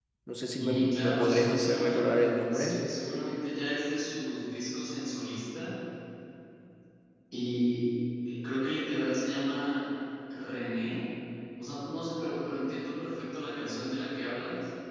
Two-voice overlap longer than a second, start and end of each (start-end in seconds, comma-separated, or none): 0.6-2.8